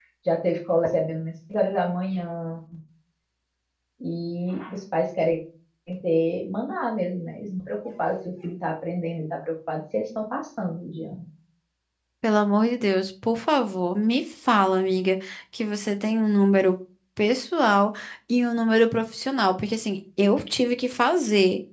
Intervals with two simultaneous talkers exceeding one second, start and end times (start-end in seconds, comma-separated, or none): none